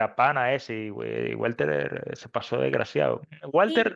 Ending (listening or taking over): listening